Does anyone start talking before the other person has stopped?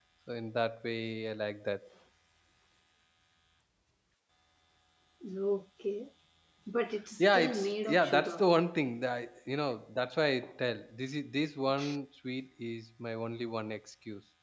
Yes, from 7.2 s

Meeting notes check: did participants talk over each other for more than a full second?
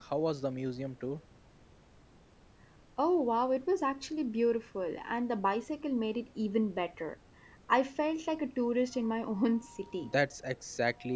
No

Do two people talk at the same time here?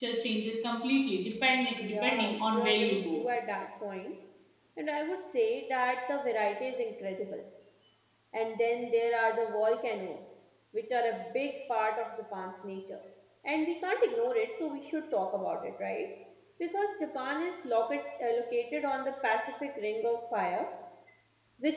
Yes, from 1.8 s

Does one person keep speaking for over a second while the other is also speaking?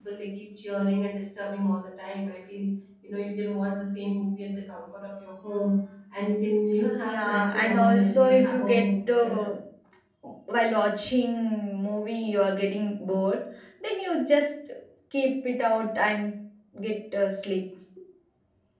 Yes, from 7.0 s

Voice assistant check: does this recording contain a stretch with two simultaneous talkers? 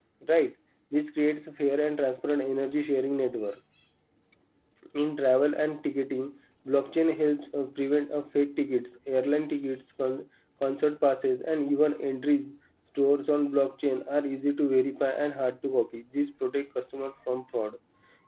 No

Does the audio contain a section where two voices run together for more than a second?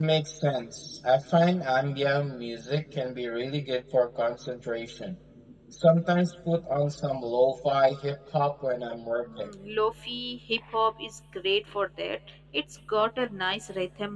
No

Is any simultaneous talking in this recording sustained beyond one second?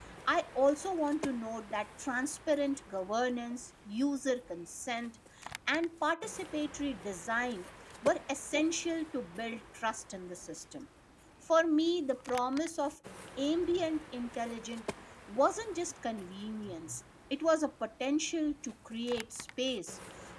No

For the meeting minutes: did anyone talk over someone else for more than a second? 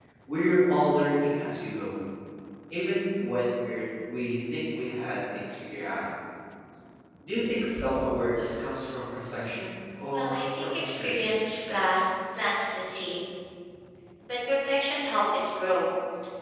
Yes, from 10.1 s

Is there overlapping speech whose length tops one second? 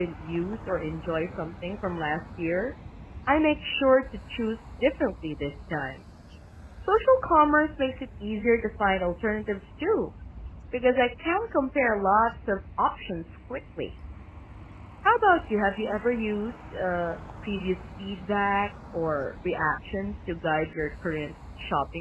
No

